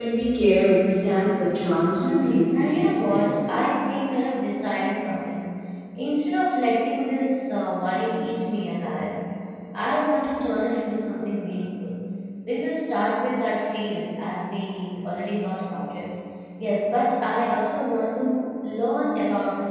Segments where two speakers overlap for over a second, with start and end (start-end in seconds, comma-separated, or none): 2.0-3.4